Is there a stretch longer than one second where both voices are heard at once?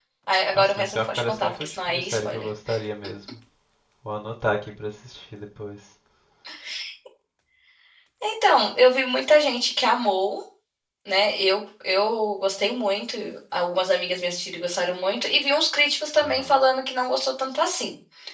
Yes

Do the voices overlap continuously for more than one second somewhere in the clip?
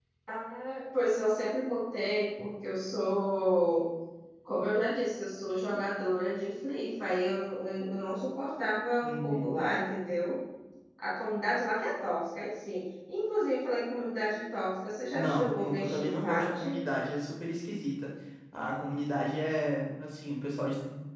Yes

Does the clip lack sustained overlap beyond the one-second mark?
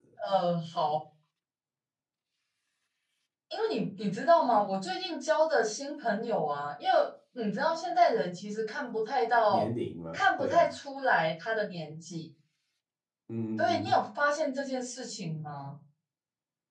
Yes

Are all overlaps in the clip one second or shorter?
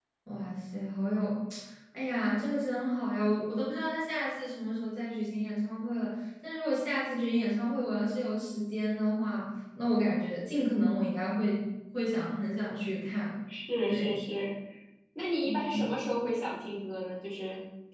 Yes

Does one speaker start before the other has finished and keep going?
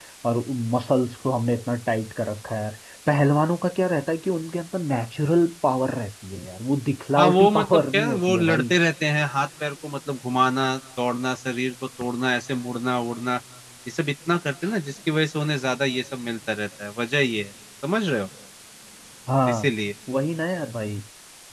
Yes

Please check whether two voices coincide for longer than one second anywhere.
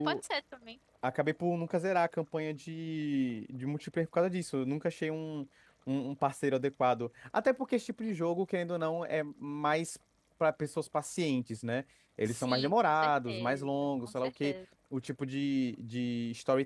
Yes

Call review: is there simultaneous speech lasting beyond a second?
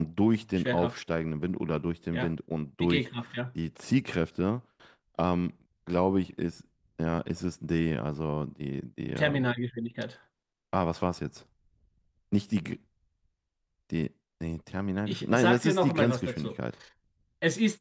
Yes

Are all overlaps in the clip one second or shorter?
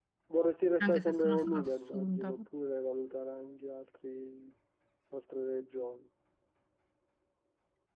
No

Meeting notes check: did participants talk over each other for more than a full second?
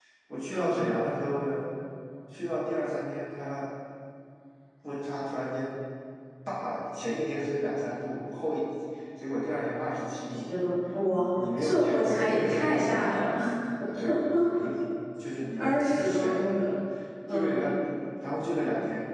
Yes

